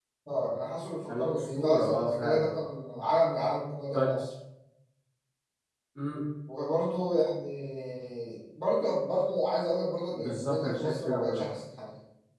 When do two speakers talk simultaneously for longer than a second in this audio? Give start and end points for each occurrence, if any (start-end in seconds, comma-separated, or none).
1.1-2.5, 10.1-11.4